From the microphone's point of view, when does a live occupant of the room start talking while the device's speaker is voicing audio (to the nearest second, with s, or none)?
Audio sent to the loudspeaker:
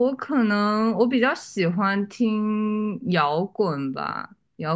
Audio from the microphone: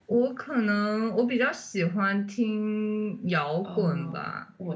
4 s